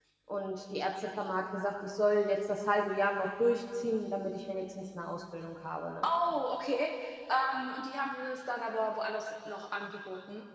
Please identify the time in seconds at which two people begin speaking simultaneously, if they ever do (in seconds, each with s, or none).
none